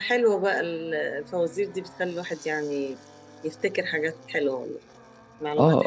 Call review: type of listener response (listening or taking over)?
taking over